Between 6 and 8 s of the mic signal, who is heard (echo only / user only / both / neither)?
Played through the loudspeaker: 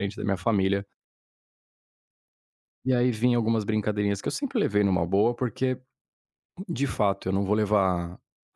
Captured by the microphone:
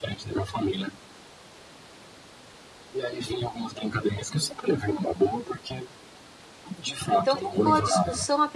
both